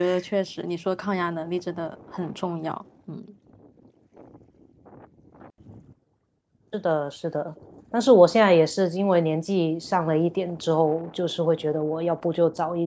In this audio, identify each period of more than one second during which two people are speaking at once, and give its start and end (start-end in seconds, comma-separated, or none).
none